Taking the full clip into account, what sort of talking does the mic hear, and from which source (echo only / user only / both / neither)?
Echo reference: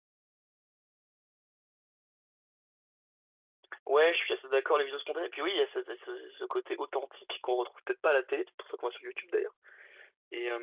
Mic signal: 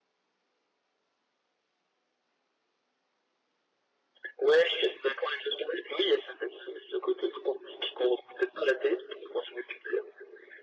echo only